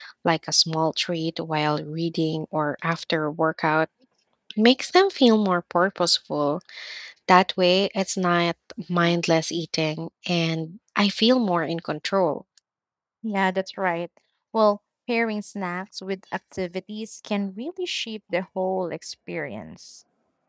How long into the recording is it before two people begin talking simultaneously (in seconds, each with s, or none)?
none